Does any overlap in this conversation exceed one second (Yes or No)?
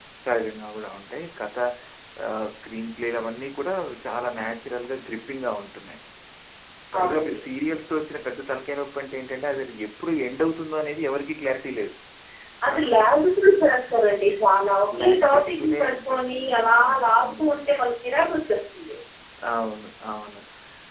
Yes